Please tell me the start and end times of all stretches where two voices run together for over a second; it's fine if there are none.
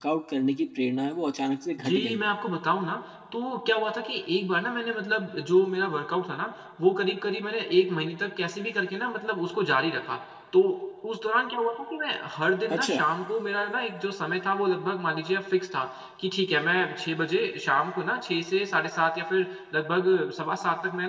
none

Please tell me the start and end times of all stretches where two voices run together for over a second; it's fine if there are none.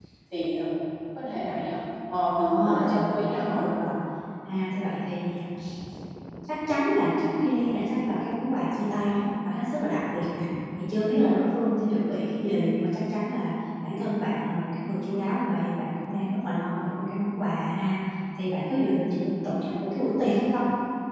2.3-3.6

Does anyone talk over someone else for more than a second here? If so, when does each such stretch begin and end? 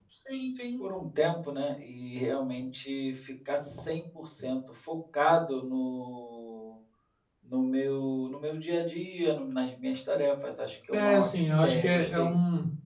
10.9-12.4

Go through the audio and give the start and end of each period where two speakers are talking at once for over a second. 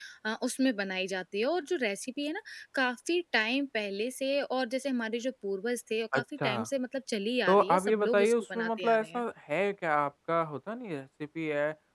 7.5-9.2

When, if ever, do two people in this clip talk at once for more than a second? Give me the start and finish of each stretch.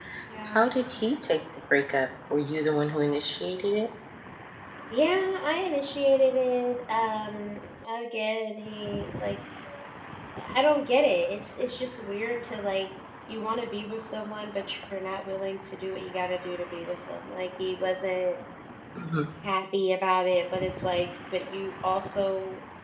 none

